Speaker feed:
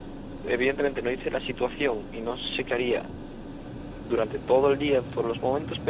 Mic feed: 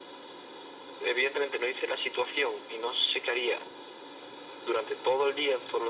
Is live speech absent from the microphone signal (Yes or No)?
Yes